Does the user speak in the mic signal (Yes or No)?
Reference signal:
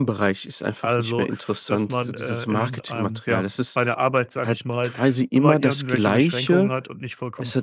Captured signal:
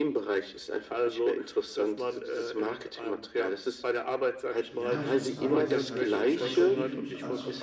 Yes